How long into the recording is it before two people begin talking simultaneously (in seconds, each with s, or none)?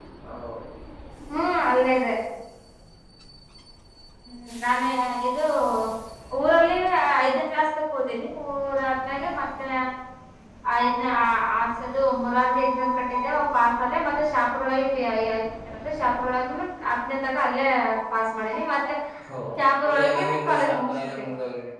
19.8 s